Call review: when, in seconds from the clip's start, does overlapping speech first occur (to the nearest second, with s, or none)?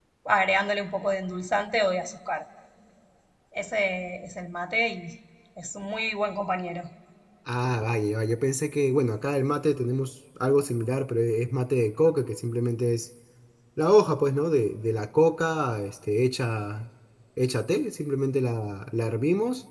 none